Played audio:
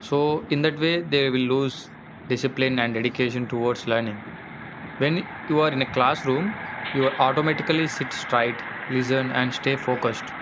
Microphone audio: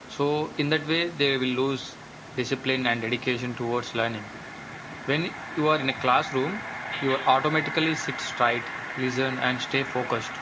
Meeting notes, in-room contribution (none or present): none